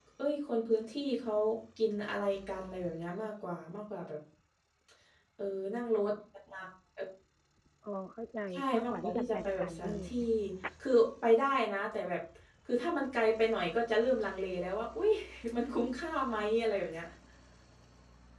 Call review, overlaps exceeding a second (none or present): present